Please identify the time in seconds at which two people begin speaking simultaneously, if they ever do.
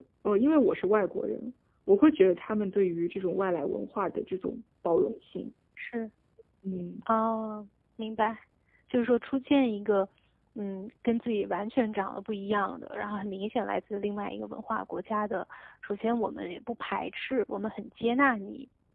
none

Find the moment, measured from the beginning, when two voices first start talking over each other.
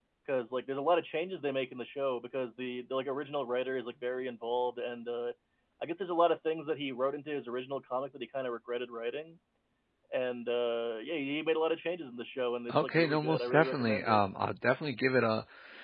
12.7 s

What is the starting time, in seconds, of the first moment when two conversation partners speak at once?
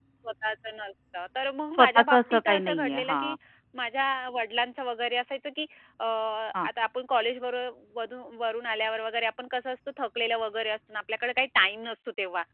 1.7 s

